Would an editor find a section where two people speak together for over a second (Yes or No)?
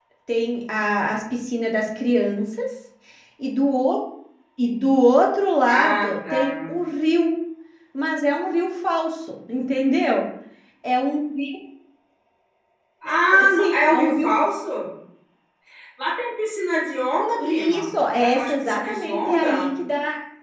Yes